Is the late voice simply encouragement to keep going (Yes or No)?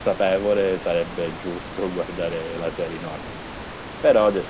Yes